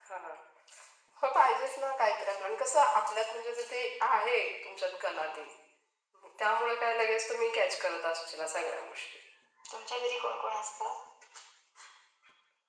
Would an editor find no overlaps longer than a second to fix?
Yes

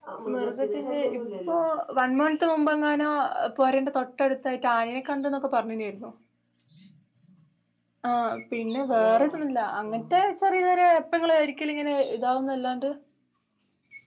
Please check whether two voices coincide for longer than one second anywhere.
Yes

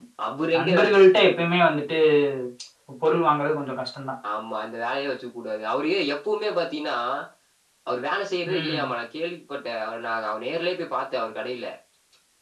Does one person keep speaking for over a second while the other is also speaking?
No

